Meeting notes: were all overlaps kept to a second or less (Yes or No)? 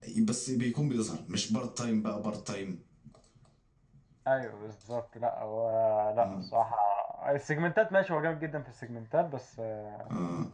Yes